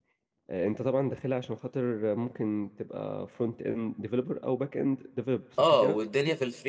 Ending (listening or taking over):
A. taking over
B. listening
A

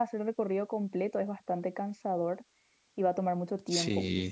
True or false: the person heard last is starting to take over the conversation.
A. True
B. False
B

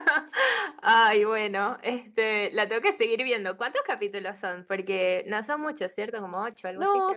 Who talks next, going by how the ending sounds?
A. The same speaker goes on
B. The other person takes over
B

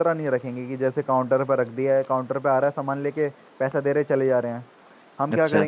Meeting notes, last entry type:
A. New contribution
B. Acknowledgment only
B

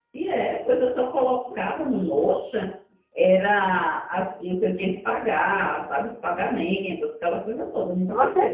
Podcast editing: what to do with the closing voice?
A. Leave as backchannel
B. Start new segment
B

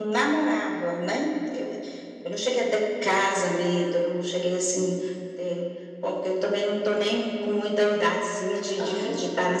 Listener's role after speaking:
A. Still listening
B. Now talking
A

